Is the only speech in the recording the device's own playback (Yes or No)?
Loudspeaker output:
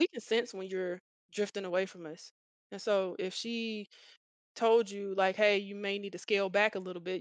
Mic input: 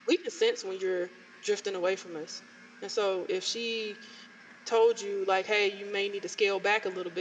Yes